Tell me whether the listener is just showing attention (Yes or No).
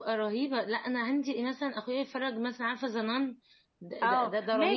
No